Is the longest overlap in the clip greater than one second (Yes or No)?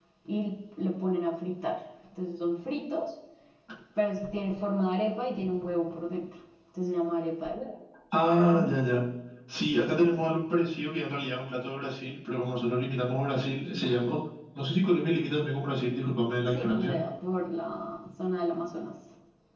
No